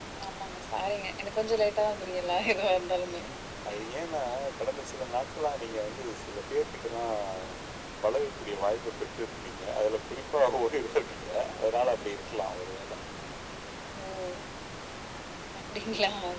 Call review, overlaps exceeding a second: none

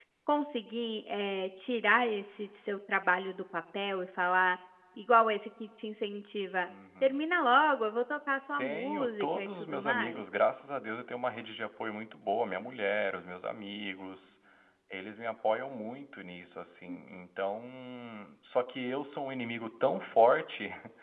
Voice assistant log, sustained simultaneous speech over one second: present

